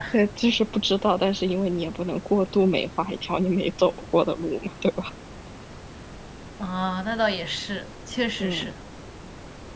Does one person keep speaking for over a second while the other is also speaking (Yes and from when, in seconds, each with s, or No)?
No